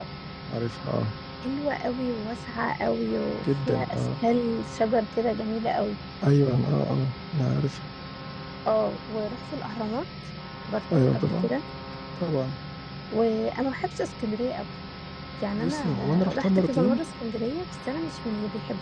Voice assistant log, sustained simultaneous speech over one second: present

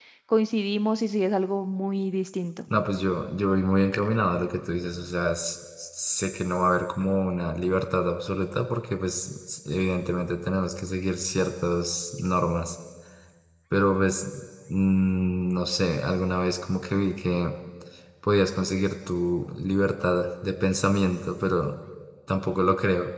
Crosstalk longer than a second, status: none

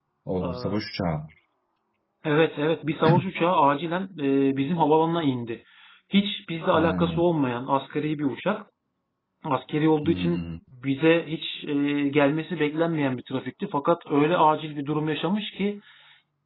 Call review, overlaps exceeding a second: none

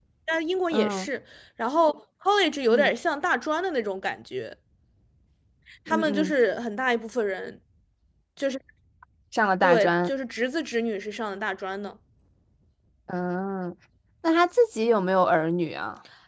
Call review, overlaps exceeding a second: none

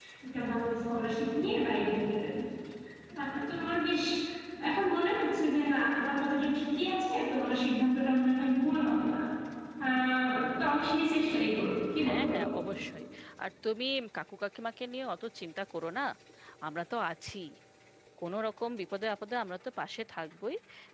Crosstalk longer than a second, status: none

